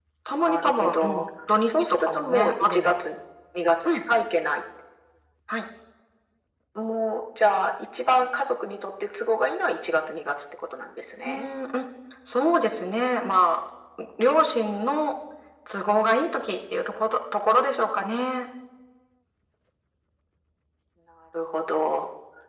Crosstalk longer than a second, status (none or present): present